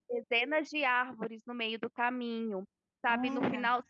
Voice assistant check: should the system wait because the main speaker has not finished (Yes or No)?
Yes